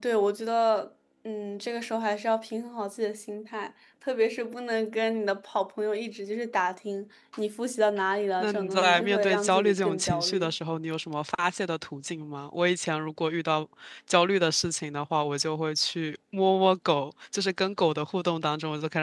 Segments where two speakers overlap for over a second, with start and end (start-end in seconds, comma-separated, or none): 8.4-10.5